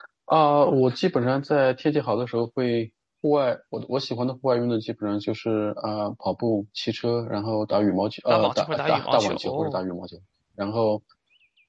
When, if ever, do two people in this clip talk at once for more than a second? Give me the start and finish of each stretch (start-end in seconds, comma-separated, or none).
8.3-9.8